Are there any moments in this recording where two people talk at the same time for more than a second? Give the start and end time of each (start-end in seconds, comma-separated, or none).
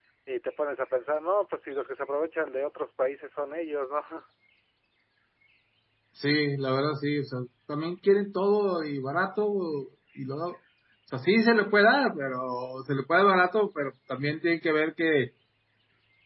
none